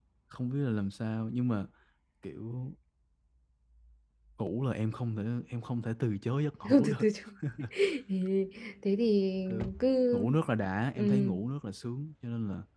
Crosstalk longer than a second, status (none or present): none